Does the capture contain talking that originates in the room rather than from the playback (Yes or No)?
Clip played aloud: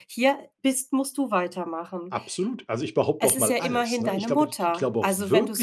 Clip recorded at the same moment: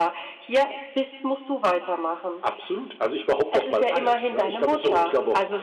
Yes